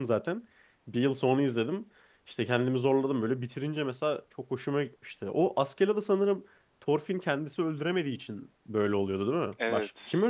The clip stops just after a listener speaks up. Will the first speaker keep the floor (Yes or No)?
No